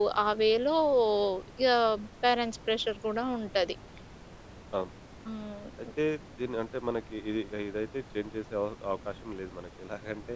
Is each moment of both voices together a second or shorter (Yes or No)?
Yes